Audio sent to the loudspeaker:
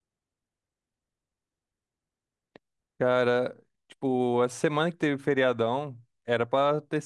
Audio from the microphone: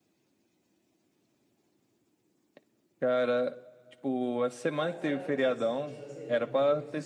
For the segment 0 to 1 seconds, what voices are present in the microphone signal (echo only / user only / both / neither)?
neither